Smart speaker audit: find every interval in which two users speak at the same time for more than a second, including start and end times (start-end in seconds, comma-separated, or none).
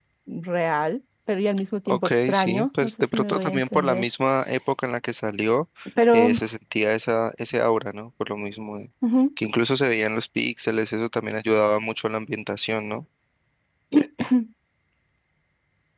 1.9-4.0